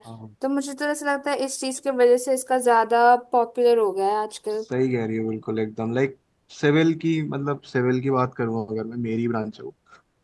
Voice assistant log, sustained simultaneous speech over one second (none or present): none